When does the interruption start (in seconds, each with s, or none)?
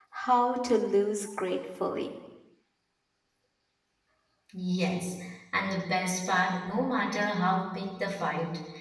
none